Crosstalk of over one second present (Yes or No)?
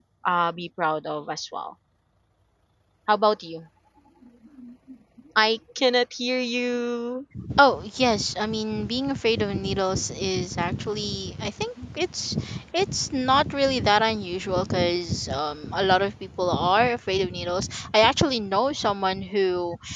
No